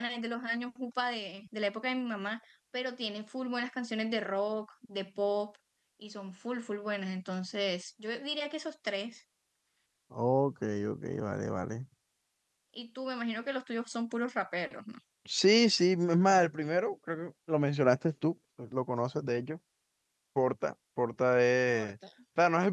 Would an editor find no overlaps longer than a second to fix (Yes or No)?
Yes